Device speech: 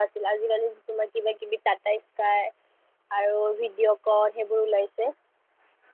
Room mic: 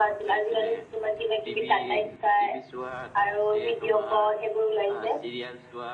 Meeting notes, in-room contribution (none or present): present